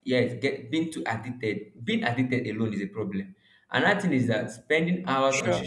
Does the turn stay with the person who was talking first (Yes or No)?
Yes